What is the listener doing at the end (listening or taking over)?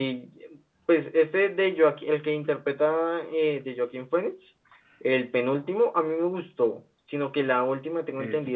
listening